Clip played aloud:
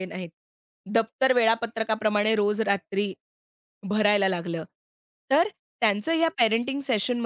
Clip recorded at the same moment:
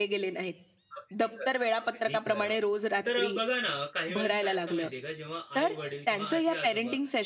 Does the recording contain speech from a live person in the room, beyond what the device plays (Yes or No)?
Yes